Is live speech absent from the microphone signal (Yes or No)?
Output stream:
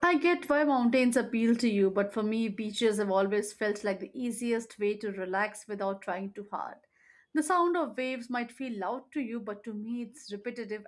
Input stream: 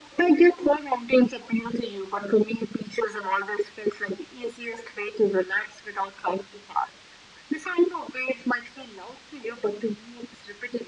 Yes